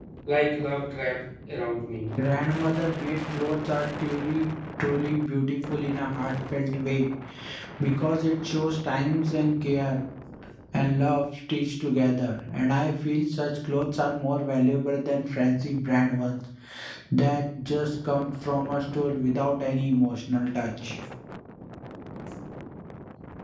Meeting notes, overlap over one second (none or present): none